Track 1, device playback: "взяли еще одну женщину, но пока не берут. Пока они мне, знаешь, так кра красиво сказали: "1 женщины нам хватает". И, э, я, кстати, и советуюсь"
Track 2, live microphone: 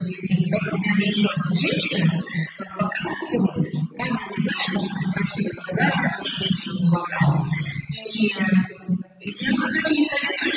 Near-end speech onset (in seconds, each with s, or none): none